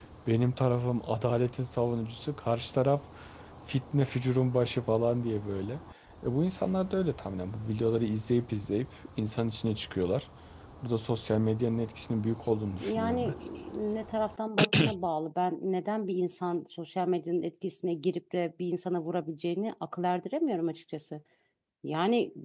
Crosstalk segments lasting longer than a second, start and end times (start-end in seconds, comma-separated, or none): none